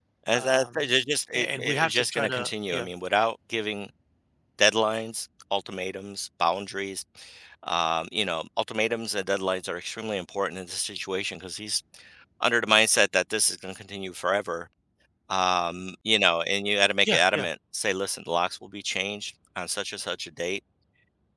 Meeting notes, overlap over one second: present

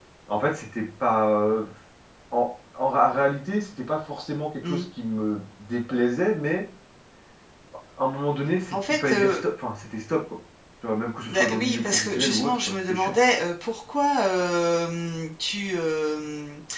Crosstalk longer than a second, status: present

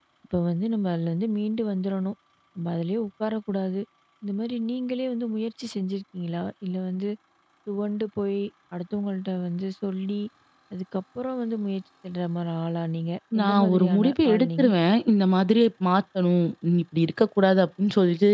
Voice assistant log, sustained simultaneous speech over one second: present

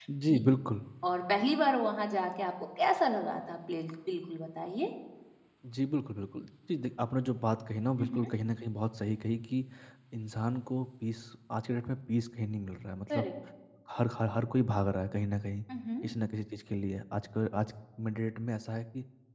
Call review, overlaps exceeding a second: none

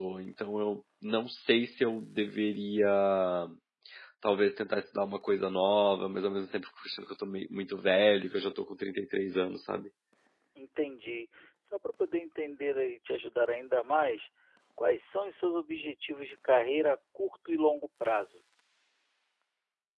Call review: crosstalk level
none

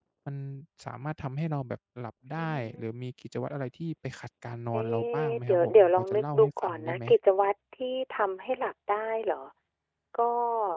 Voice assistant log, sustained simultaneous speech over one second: present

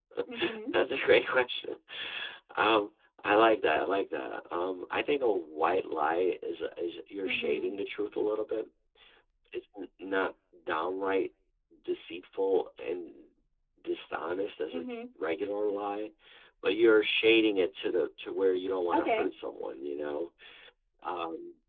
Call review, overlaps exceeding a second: none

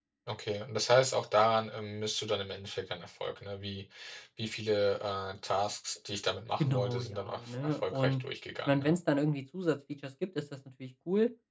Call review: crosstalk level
present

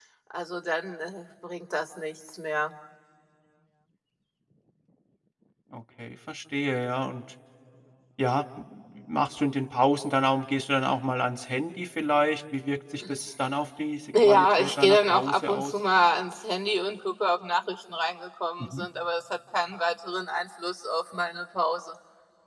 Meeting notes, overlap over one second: present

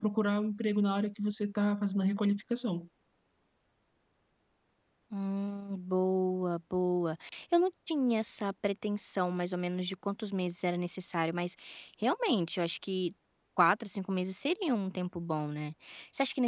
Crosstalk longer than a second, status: none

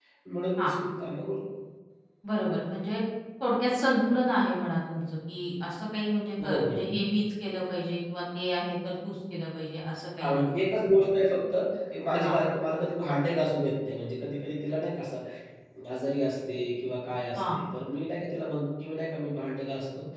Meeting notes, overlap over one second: none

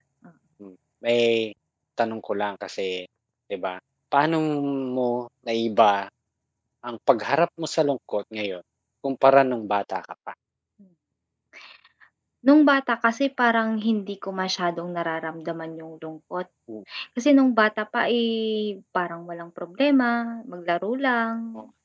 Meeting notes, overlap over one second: none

